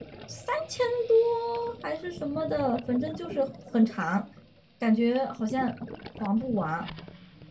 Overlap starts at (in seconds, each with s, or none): none